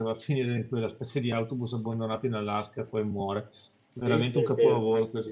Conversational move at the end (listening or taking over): taking over